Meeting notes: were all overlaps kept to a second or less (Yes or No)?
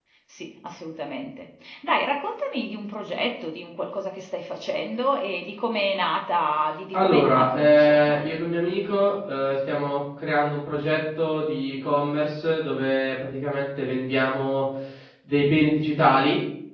No